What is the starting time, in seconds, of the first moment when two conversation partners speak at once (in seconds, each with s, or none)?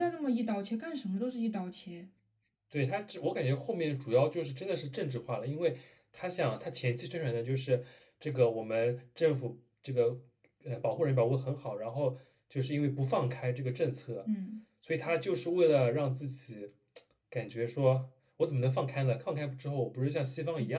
none